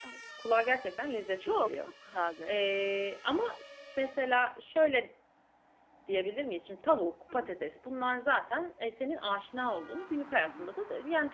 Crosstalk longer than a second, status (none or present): none